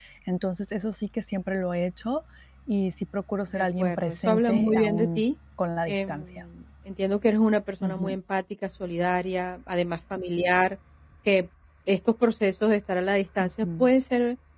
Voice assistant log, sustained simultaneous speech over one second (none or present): present